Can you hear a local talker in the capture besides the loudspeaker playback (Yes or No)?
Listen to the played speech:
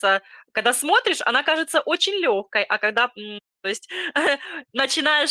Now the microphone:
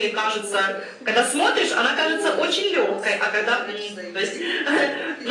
Yes